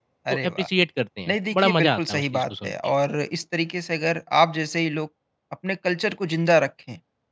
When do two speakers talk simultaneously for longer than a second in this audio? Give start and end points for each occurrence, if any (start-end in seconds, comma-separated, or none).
1.3-2.7